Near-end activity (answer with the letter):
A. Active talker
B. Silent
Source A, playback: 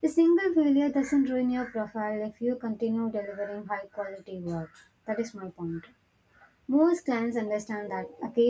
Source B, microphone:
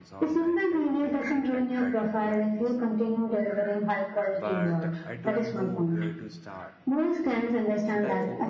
A